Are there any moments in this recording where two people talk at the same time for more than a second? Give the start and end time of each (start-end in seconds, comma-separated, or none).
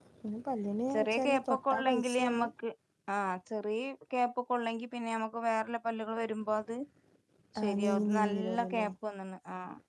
0.9-2.5, 7.6-8.9